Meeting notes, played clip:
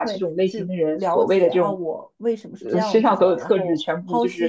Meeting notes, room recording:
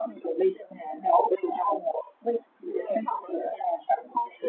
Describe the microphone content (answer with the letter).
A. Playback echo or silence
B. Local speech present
A